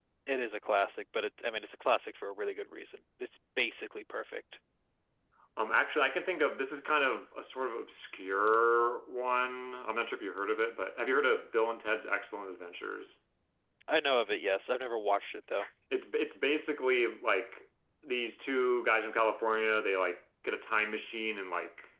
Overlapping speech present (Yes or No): No